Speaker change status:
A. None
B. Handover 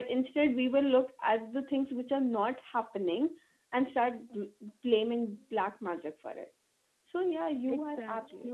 A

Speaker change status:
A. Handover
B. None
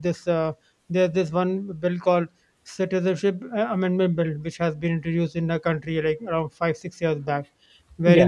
B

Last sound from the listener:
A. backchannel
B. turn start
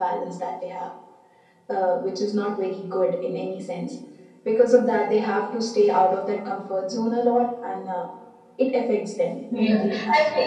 B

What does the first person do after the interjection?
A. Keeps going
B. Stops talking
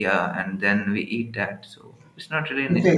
B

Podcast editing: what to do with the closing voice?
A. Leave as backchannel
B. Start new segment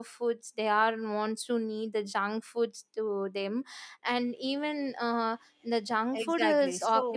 B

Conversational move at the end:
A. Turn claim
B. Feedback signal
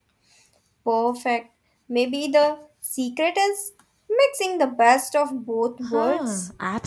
A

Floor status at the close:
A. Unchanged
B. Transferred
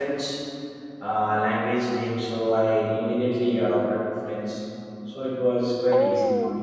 B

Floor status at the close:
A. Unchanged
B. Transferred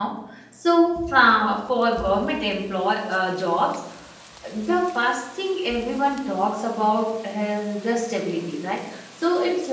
A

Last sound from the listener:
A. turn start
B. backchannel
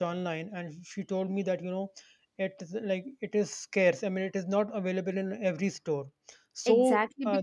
A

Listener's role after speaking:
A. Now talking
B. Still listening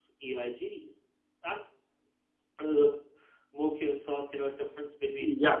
A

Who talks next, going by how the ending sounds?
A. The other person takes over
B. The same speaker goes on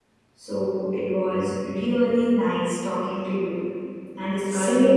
B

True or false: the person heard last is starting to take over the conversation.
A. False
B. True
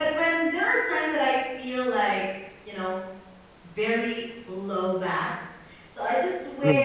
A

